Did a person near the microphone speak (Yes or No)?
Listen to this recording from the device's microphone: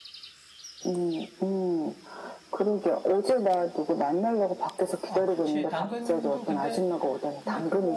Yes